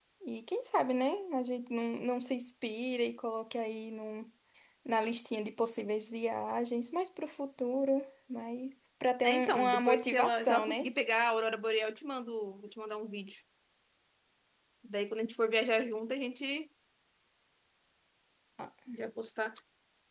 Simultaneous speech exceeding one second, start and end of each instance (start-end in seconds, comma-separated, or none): 9.2-10.9